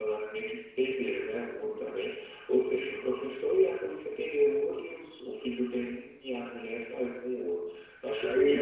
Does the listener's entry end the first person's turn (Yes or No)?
Yes